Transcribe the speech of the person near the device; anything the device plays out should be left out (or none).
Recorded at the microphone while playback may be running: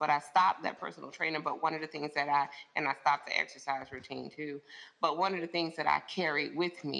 none